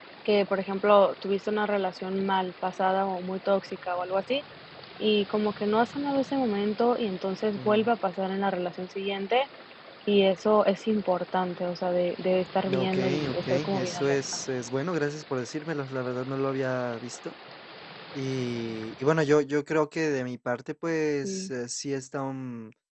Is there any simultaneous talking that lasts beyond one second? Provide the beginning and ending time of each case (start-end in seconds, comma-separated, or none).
12.7-14.2